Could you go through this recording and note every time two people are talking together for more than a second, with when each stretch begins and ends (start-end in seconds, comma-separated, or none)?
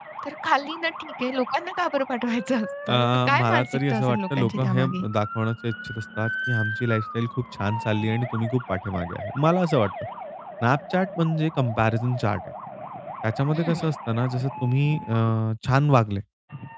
2.9-5.0